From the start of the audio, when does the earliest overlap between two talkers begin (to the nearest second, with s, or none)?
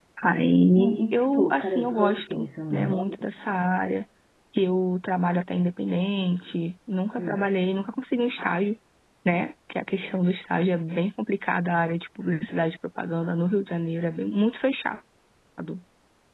1 s